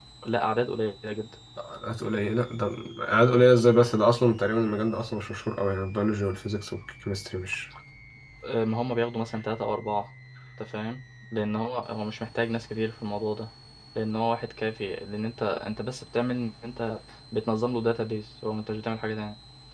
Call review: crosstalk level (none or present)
none